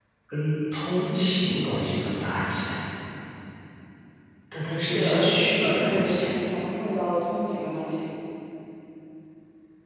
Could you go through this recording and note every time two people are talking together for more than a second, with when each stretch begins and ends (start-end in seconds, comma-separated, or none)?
4.8-6.2